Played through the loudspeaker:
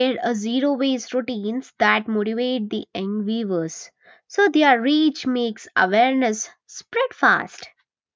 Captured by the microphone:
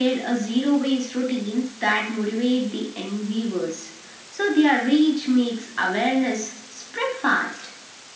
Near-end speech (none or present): none